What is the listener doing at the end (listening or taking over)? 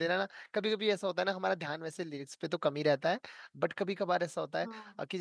listening